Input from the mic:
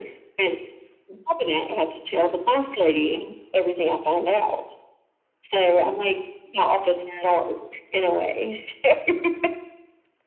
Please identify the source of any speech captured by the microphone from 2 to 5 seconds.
echo only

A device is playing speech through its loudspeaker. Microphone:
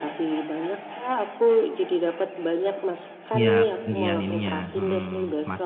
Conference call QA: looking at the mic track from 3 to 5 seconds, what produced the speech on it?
both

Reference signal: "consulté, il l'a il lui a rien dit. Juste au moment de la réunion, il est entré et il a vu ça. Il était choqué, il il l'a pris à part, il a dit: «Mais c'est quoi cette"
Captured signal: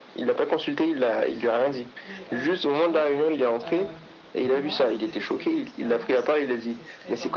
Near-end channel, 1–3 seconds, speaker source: both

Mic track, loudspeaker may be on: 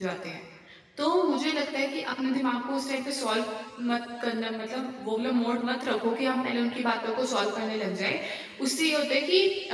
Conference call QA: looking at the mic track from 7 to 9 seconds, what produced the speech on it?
user only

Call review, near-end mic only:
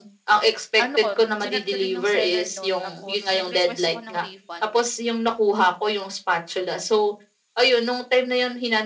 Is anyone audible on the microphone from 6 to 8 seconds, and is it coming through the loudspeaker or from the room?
echo only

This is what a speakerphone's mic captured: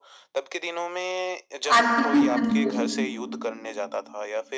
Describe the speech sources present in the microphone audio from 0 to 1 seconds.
echo only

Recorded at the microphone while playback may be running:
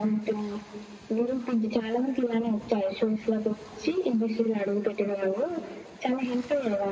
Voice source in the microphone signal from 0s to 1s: echo only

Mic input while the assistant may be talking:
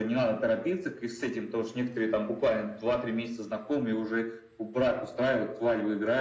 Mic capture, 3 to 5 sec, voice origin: echo only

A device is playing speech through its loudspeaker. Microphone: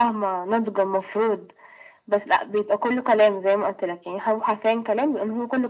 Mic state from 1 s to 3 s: echo only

